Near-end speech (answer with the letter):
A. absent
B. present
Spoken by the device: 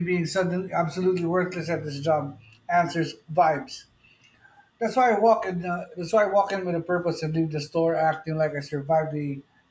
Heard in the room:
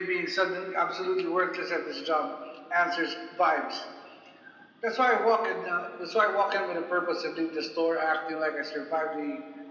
A